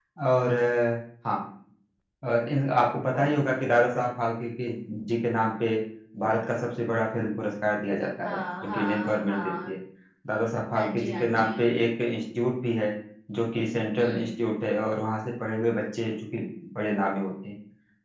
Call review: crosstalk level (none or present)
present